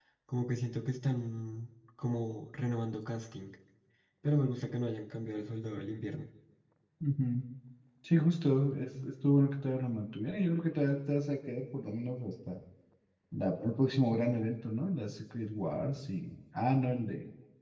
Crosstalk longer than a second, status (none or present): none